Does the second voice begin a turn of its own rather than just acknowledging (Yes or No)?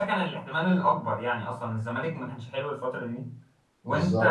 No